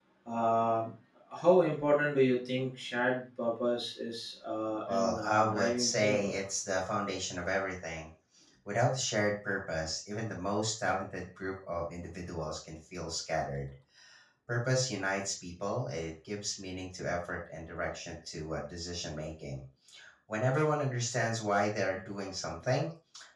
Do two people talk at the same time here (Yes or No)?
Yes